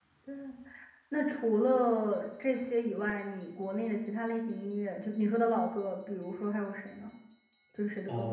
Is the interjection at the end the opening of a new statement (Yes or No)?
Yes